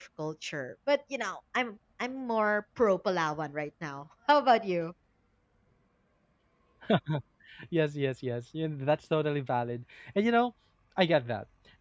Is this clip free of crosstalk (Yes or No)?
Yes